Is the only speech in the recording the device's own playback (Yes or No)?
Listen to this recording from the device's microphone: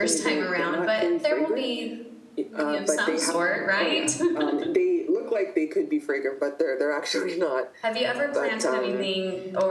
No